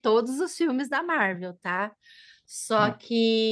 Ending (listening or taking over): listening